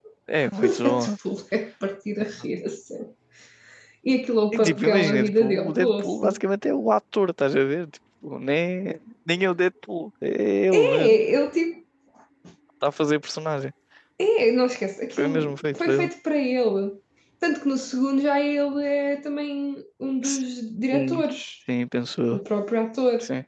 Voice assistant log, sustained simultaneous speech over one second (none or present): present